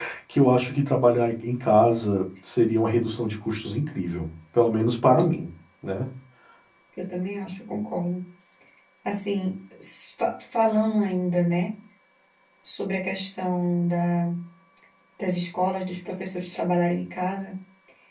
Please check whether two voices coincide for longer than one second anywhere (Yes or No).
No